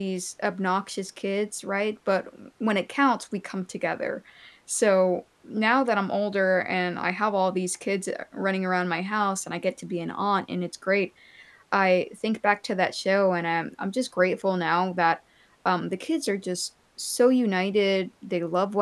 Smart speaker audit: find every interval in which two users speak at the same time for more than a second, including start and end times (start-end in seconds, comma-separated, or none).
none